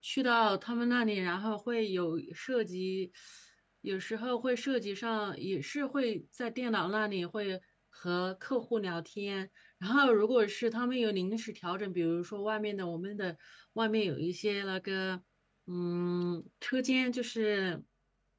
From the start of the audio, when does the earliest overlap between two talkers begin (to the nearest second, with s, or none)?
none